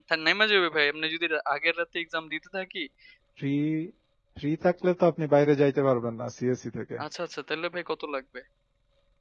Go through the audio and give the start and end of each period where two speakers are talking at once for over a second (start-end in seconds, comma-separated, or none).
none